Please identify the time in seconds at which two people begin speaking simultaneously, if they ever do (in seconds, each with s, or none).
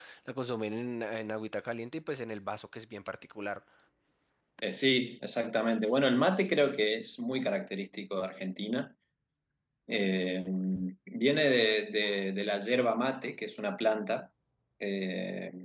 none